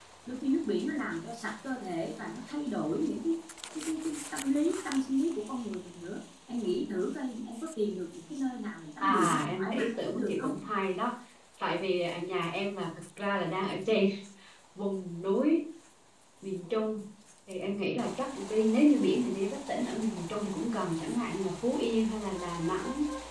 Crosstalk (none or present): present